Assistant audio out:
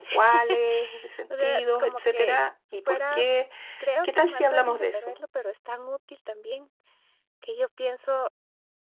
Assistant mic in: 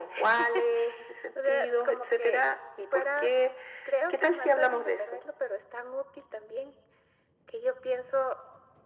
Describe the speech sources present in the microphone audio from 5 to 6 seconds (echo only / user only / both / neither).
echo only